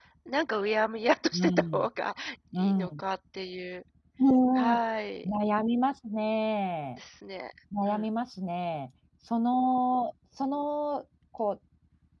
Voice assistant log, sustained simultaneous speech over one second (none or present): none